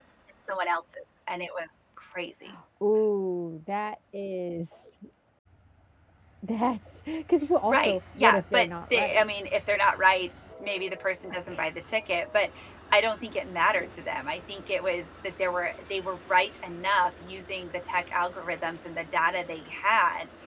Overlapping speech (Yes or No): Yes